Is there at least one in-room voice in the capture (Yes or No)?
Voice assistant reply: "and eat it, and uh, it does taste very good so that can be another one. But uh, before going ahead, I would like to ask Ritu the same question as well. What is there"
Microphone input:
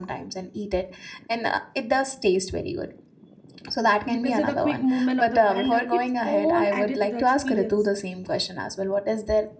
Yes